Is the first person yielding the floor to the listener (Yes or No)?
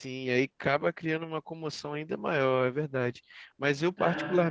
No